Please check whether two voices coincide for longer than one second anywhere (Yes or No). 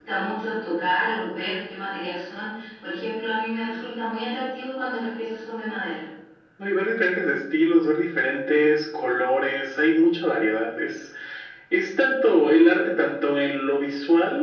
No